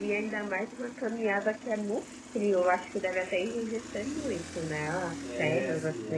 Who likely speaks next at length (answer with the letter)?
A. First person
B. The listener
B